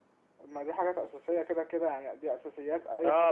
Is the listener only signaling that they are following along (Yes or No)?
No